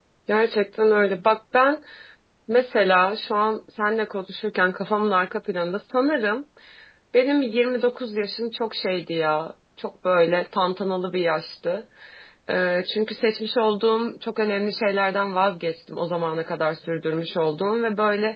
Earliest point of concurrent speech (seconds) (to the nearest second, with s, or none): none